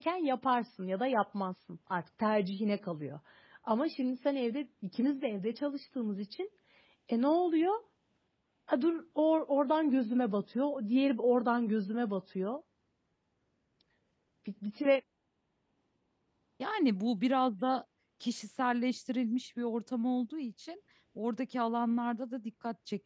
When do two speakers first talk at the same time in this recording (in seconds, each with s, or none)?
none